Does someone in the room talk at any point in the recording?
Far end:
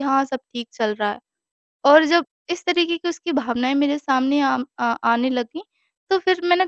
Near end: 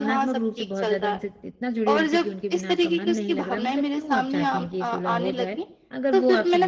Yes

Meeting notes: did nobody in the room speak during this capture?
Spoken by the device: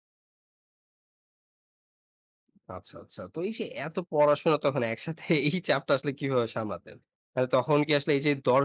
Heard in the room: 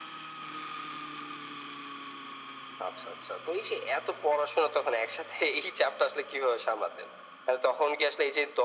Yes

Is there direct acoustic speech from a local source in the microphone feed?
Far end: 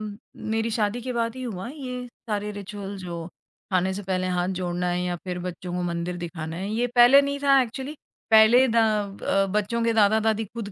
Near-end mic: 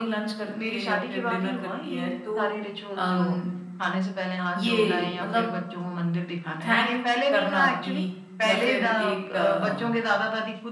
Yes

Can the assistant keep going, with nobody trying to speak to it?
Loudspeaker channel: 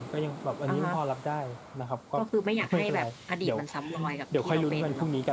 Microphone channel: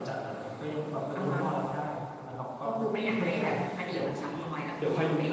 Yes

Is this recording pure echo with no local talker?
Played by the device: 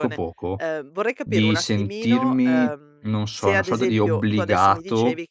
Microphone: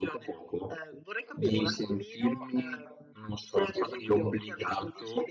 Yes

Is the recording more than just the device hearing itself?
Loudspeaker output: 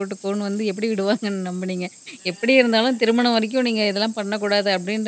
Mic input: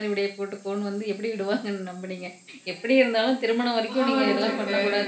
Yes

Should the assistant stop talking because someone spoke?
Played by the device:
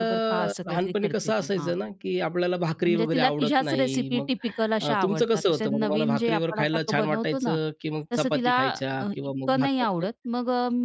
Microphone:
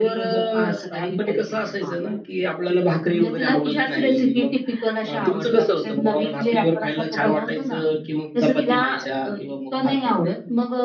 No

